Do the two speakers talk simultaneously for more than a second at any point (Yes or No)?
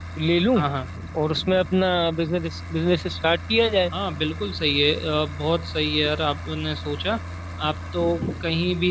No